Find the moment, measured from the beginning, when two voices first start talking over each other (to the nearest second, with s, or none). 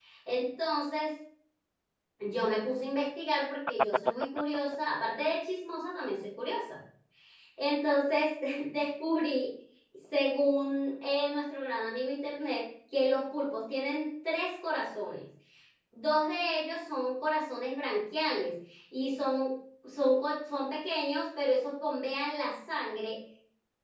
none